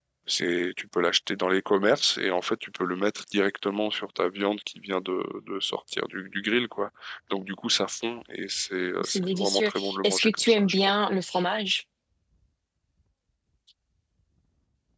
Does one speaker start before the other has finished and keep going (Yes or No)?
Yes